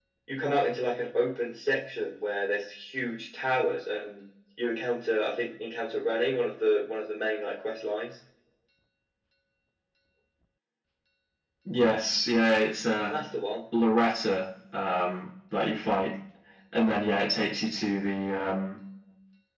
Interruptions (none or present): none